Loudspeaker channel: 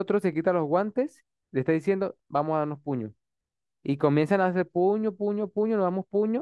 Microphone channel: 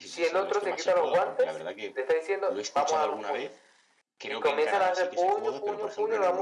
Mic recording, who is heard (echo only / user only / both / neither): both